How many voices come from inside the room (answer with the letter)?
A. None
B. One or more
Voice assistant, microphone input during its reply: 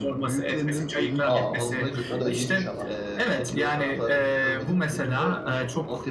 B